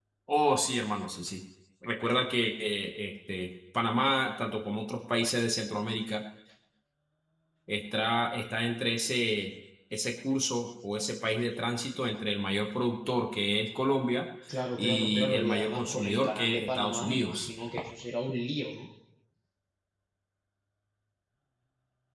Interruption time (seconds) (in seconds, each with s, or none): 14.8 s